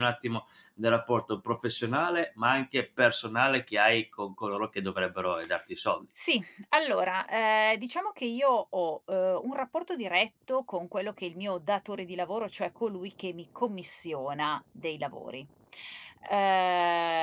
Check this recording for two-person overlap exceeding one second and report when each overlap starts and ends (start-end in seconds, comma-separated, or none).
none